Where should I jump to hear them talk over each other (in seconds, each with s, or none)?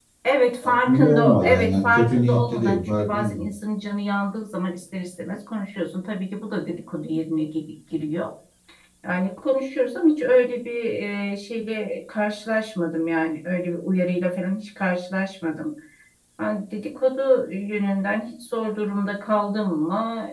0.6 s